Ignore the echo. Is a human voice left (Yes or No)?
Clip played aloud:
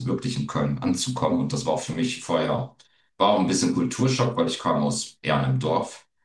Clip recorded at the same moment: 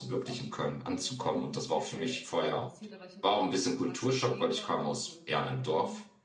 Yes